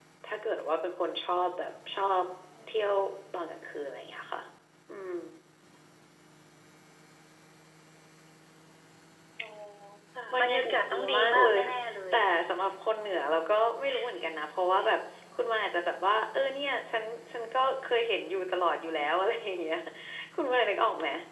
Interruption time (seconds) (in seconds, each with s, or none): 10.3 s